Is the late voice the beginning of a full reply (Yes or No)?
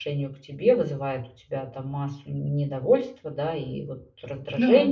No